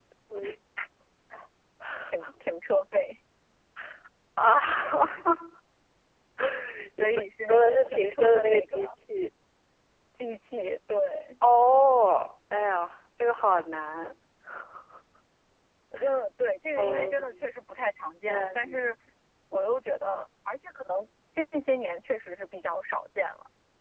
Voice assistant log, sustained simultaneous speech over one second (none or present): present